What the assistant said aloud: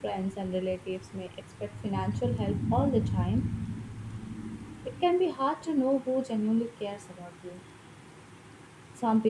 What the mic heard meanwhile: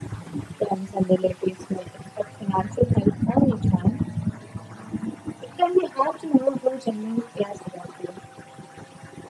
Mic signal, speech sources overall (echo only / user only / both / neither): echo only